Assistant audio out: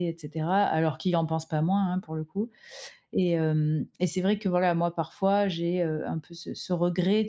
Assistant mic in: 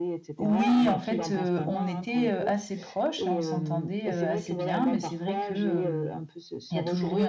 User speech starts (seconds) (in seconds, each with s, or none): 0.4 s